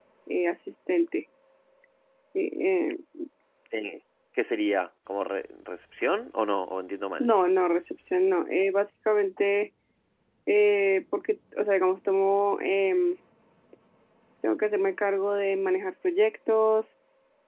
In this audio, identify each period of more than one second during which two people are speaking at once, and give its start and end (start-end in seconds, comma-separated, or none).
none